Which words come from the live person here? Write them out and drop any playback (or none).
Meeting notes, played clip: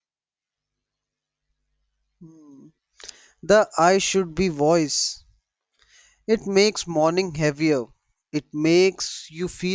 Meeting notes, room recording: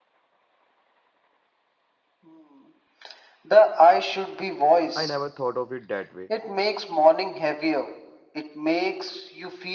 I never thought of it that way.